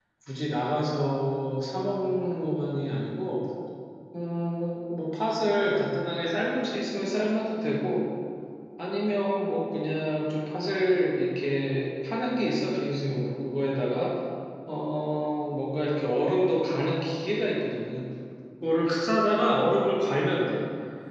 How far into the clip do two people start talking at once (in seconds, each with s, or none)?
none